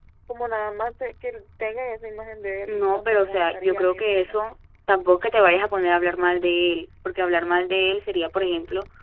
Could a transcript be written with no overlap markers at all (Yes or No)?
No